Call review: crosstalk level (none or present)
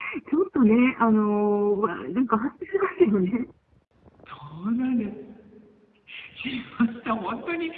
none